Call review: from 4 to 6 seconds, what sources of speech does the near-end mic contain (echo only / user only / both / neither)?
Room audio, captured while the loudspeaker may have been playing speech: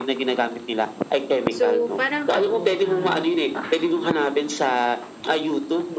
echo only